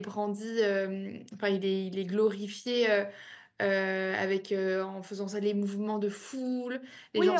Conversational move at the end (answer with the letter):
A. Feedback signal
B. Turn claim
B